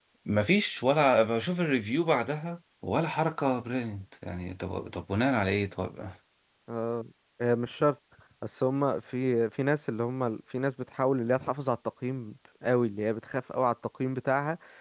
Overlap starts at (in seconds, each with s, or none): none